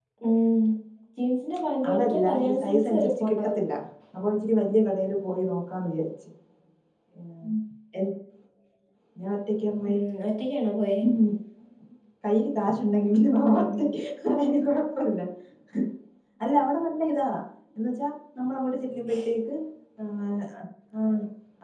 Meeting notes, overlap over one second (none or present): present